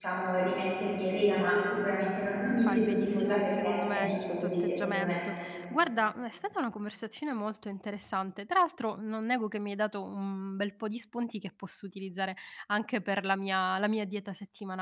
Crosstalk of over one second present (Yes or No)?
Yes